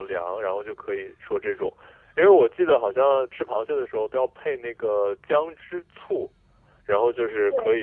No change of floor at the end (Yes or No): Yes